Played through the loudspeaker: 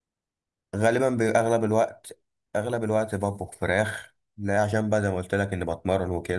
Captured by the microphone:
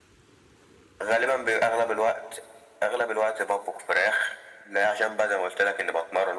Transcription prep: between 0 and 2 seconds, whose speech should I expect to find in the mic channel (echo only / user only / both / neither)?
echo only